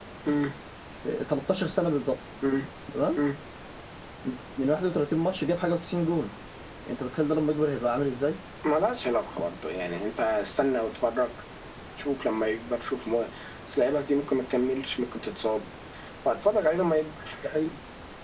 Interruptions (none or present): none